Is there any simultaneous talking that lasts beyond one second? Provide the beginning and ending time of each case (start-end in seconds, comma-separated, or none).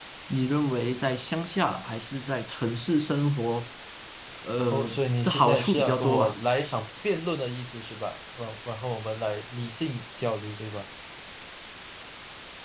4.7-6.4